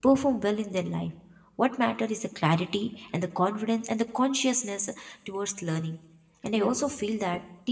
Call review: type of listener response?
listening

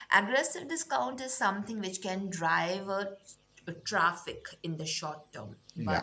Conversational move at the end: listening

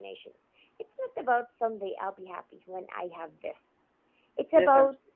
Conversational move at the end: listening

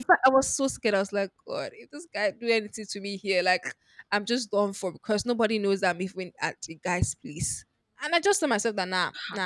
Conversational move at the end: listening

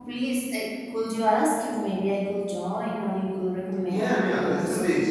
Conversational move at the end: taking over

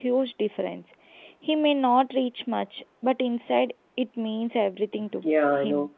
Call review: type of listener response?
taking over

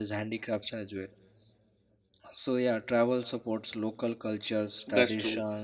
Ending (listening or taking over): listening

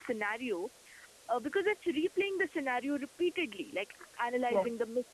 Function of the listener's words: listening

